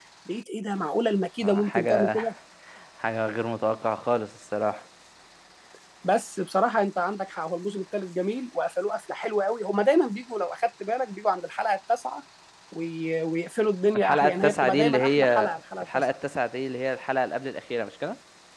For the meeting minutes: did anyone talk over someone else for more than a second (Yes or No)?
Yes